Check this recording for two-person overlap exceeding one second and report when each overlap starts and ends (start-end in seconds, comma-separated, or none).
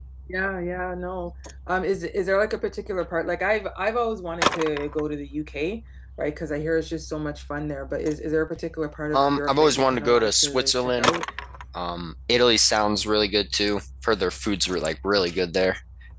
9.1-11.1